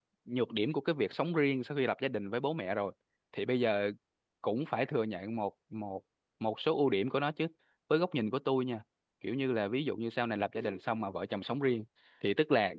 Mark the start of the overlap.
none

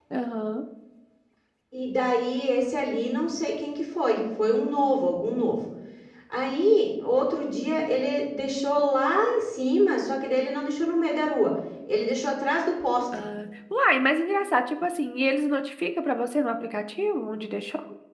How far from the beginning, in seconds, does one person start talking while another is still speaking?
none

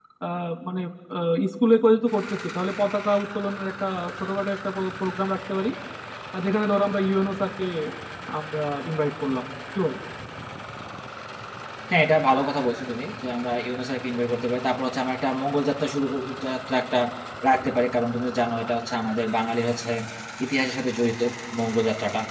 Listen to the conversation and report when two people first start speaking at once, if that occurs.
none

